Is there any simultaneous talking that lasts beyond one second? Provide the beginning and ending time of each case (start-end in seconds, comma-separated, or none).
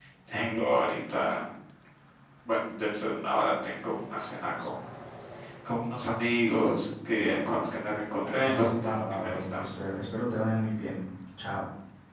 8.2-9.6